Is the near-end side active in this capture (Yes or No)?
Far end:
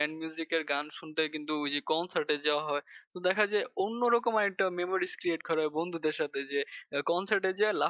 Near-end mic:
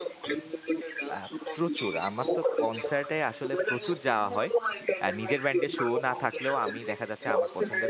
Yes